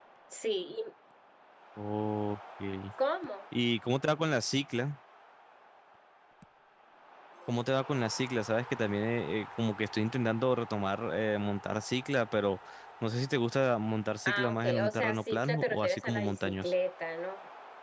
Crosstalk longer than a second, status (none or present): present